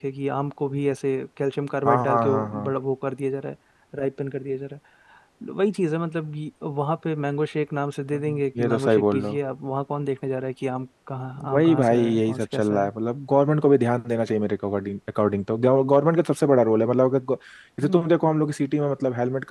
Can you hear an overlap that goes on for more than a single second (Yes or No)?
Yes